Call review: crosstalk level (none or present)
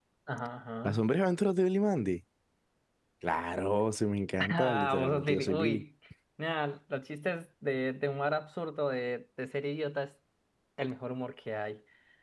present